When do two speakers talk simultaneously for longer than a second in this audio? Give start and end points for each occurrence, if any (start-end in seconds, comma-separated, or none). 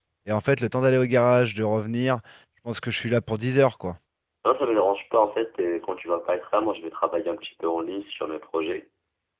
none